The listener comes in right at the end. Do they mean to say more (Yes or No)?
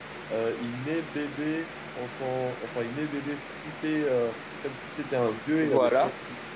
No